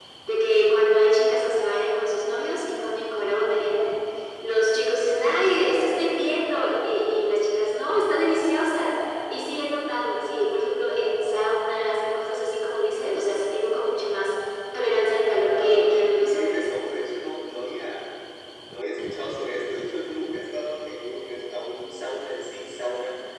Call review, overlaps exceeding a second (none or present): present